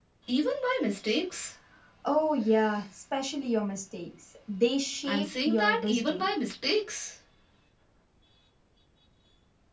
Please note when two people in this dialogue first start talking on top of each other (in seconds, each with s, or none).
5.0 s